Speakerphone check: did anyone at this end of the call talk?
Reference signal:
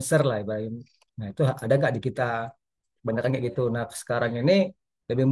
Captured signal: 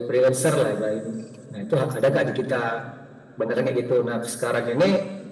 No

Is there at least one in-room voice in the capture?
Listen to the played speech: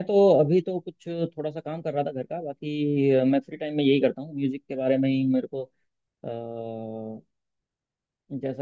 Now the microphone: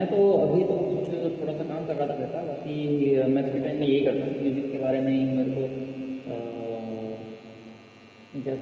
No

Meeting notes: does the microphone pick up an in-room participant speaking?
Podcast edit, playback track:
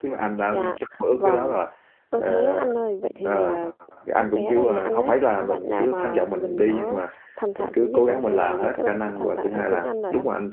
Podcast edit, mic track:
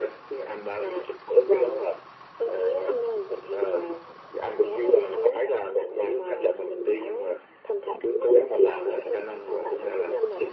No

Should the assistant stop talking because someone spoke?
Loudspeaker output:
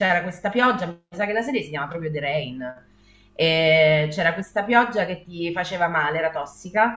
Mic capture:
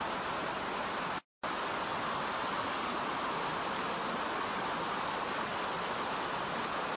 No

